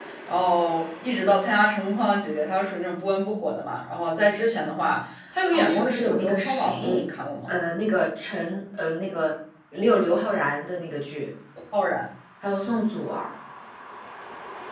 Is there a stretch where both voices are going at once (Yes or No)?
Yes